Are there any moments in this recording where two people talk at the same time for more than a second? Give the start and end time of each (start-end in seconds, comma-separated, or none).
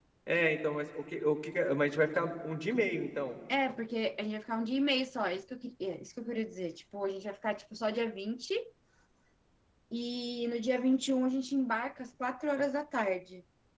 none